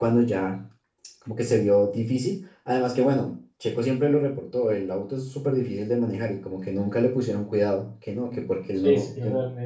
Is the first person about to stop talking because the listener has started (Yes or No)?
Yes